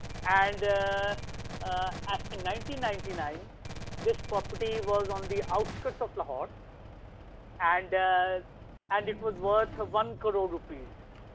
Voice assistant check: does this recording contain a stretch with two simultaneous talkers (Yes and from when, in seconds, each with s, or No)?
No